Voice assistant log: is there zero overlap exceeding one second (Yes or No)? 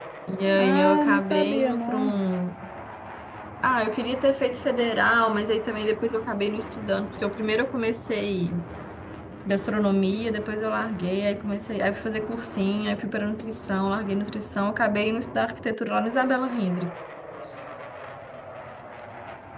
No